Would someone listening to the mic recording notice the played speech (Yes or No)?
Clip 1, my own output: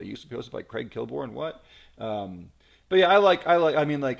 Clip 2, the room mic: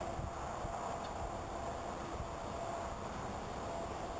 No